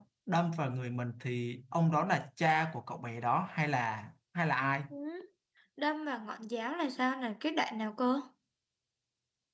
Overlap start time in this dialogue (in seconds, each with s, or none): none